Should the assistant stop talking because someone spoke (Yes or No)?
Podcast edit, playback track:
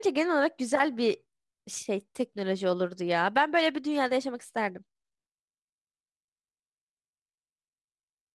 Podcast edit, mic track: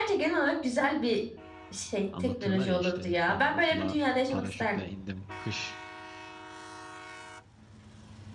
Yes